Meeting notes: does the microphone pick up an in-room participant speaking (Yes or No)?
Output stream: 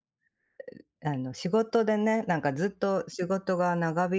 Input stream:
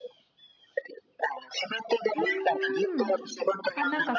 Yes